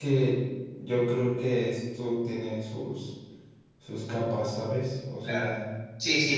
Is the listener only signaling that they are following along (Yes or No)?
No